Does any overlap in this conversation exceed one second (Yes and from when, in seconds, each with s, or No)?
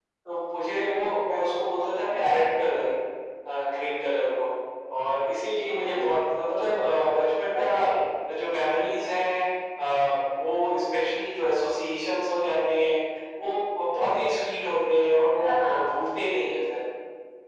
No